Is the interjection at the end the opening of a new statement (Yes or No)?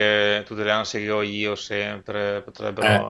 Yes